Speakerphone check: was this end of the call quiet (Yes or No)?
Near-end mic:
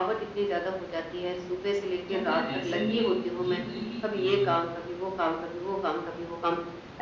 No